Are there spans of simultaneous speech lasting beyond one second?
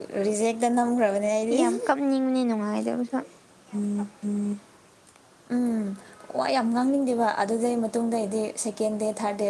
No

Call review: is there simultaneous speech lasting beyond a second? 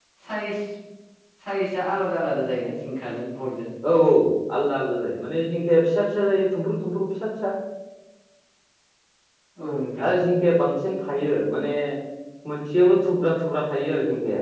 No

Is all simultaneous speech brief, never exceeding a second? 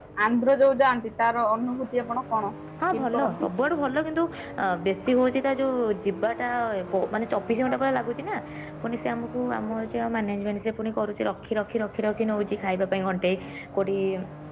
Yes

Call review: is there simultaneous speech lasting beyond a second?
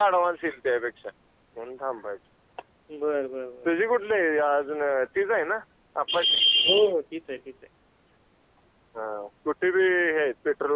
No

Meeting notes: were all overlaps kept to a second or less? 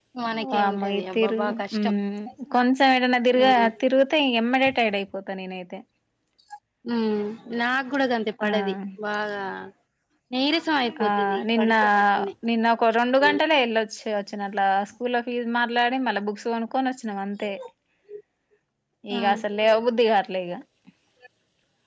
No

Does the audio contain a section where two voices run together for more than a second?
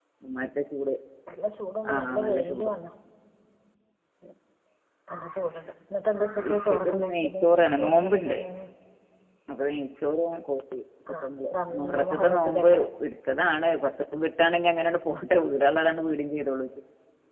Yes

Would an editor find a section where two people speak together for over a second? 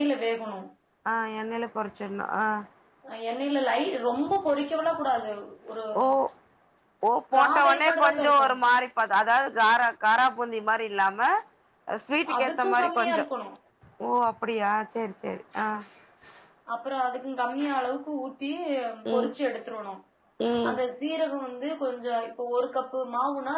Yes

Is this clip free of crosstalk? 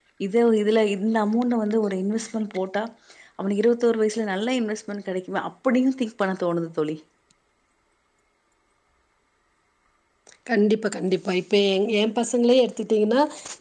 Yes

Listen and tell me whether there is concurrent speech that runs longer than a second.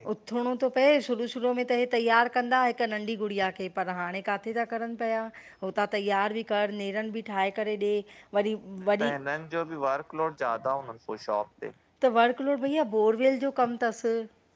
No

